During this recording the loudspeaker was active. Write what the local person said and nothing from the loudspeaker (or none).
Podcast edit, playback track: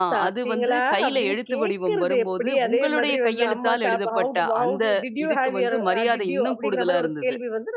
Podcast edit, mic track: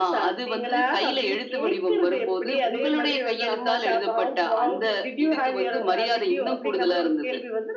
none